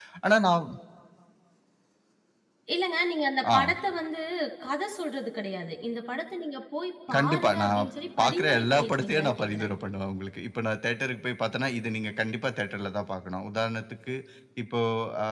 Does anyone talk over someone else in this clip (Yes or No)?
Yes